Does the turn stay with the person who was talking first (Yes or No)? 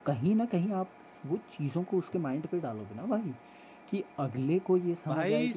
No